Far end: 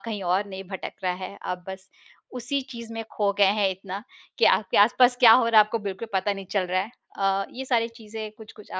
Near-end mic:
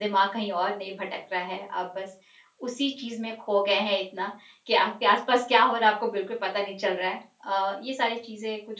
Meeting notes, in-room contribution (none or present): none